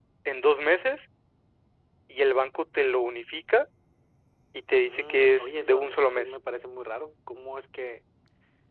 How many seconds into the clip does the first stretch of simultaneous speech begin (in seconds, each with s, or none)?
4.8 s